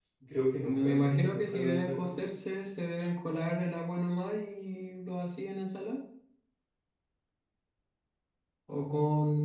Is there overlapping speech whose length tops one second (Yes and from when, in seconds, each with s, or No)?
Yes, from 0.6 s